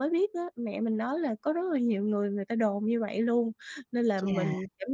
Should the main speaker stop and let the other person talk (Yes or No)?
No